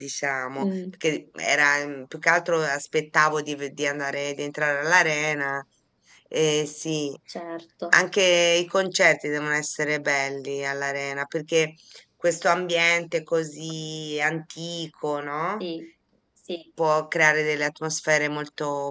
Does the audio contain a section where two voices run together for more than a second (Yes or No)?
No